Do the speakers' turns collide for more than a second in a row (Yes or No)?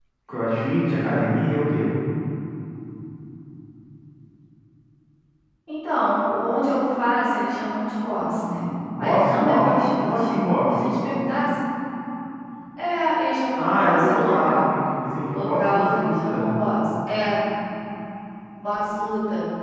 Yes